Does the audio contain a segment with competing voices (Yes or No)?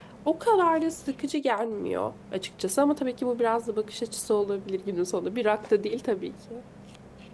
No